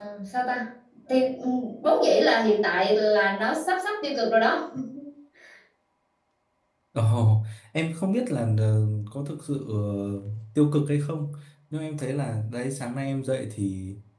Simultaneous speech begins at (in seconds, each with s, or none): none